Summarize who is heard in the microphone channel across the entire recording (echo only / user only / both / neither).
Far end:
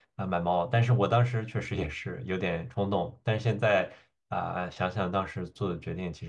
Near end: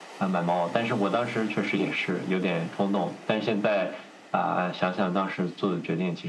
echo only